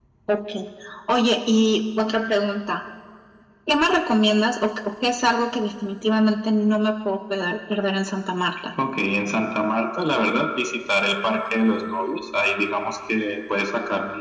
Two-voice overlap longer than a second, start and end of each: none

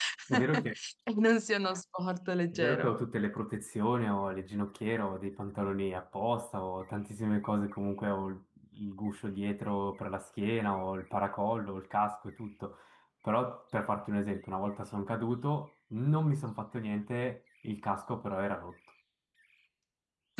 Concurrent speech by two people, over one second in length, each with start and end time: none

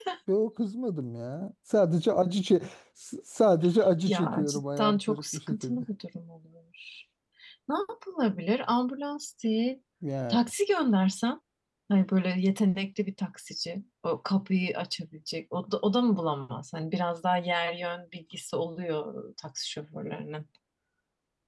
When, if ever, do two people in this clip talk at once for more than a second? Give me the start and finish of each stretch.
4.0-5.8

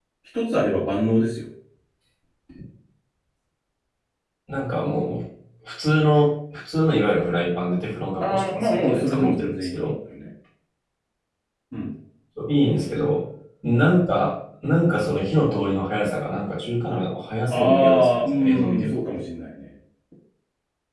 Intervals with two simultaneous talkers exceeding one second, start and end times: 8.2-9.9, 17.5-19.0

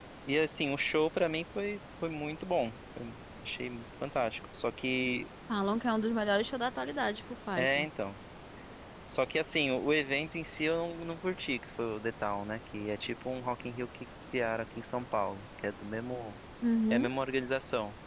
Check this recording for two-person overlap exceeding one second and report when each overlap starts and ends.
none

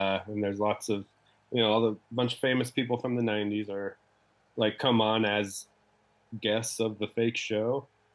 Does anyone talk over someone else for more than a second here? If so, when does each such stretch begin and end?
none

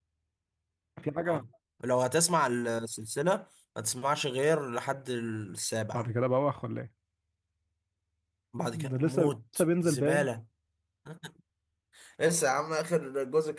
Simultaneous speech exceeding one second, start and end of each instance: 8.9-10.2

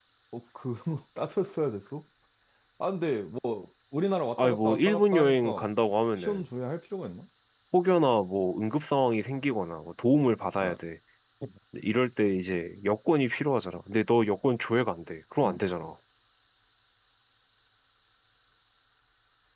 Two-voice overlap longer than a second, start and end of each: 4.4-5.7

